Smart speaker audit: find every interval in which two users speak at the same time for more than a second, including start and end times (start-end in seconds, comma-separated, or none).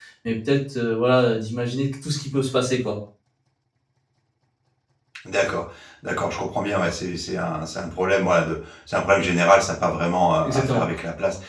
none